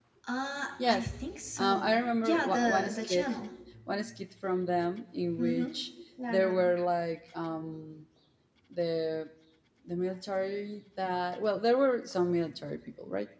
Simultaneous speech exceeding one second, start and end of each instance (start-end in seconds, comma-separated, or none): 1.6-3.3